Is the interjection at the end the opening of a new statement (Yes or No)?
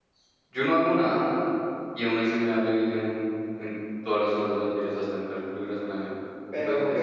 Yes